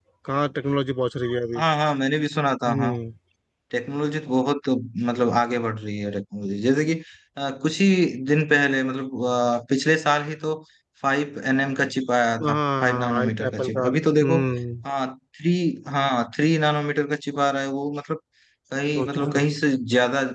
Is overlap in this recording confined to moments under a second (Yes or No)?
No